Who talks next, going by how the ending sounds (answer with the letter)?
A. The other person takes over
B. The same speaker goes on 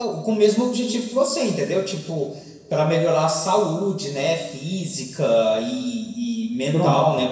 B